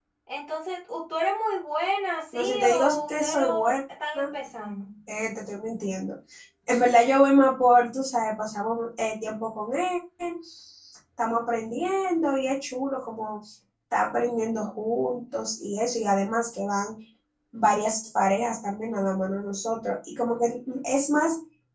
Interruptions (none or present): present